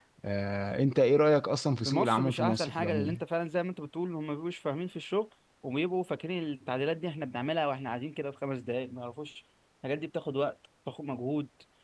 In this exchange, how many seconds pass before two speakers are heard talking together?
1.8 s

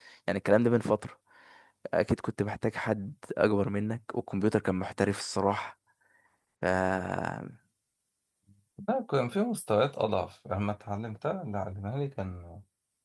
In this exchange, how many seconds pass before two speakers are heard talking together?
none

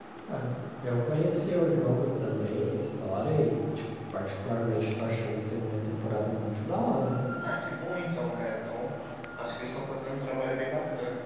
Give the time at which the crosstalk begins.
none

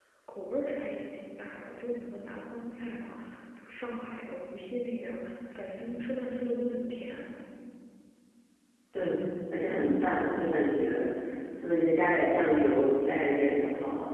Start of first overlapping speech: none

